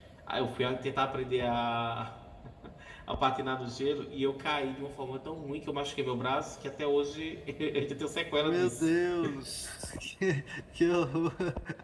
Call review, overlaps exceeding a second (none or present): none